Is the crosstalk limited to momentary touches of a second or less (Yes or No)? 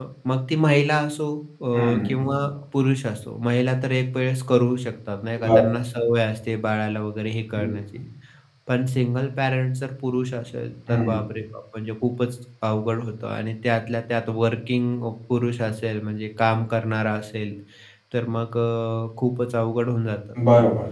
Yes